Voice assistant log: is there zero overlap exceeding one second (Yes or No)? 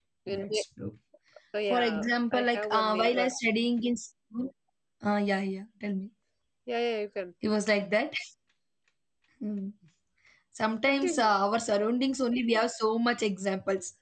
No